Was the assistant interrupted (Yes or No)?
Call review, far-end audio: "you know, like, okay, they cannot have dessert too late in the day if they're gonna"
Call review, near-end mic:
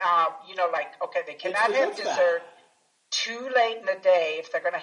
Yes